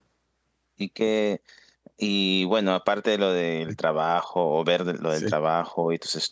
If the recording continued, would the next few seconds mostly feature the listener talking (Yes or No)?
No